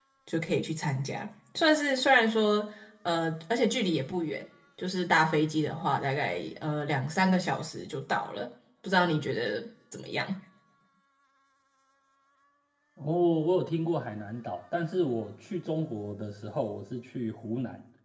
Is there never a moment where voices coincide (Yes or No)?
Yes